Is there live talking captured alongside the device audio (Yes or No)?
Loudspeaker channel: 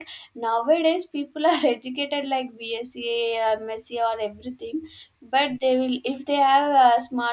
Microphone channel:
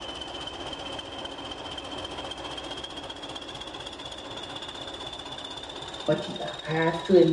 Yes